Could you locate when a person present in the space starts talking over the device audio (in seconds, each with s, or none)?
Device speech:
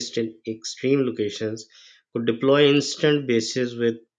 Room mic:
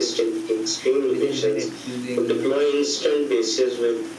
1.1 s